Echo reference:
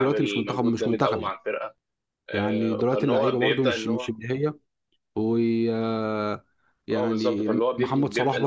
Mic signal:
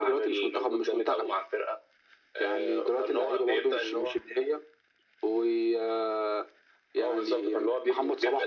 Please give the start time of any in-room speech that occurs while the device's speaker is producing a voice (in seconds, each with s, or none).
none